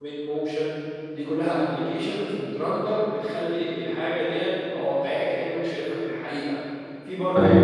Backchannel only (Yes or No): Yes